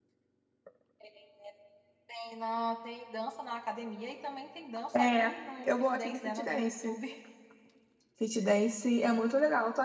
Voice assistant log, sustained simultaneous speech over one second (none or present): present